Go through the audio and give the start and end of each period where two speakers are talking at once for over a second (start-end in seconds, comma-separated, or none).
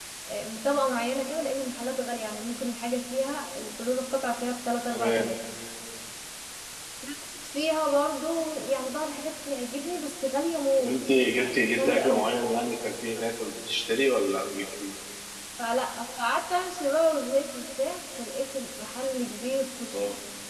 10.8-12.3